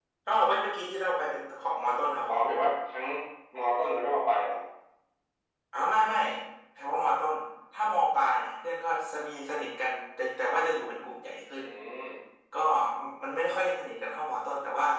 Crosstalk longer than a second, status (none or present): none